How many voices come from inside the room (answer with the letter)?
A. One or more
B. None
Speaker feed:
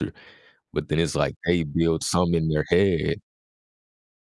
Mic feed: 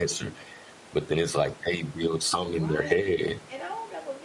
A